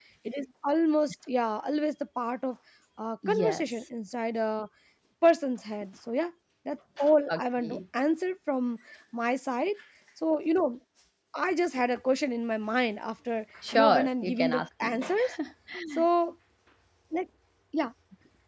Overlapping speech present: Yes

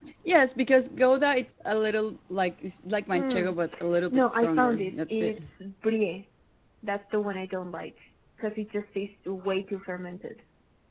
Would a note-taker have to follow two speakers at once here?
Yes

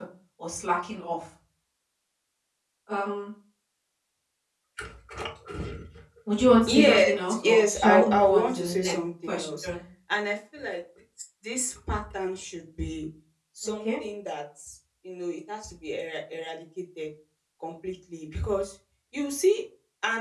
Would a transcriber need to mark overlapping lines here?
Yes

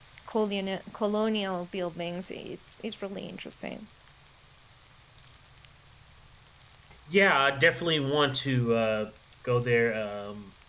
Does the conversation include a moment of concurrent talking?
No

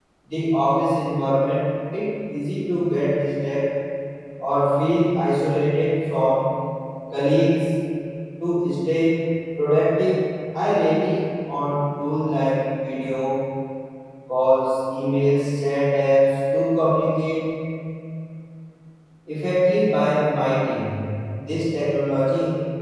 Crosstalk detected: No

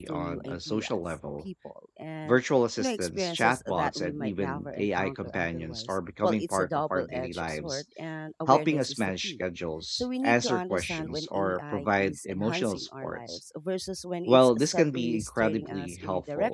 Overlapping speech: Yes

